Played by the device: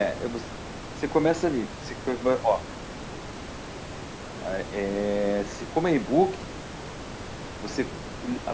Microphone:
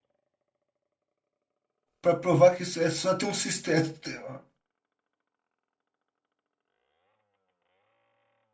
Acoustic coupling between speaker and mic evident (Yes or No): No